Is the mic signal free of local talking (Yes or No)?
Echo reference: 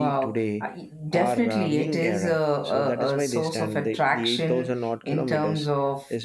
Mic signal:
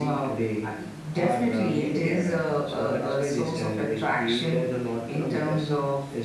Yes